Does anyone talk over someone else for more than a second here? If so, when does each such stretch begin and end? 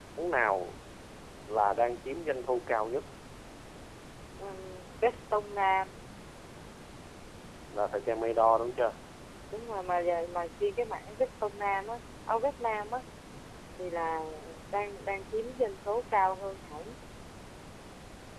none

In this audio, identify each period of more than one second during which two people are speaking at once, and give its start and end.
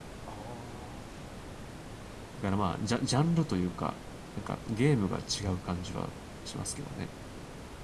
none

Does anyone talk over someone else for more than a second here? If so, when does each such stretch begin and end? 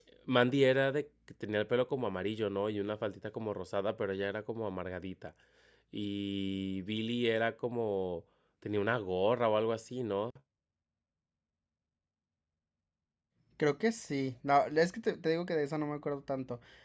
none

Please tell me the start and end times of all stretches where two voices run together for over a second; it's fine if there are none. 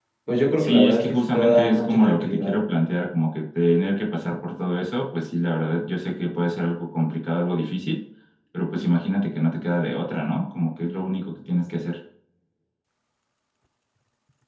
0.6-2.6

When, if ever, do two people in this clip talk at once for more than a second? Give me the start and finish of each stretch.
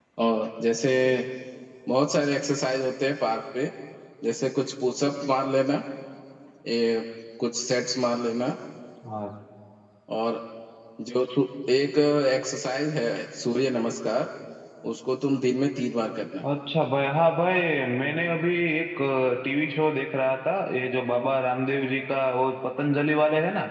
none

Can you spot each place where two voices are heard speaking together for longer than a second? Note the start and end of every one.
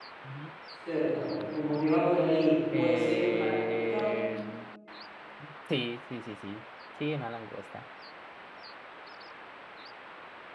2.7-4.1

